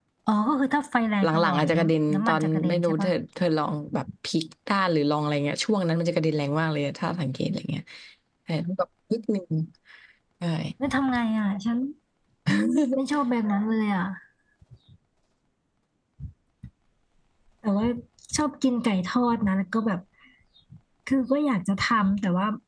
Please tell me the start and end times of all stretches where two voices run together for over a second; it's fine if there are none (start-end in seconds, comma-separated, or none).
1.2-3.1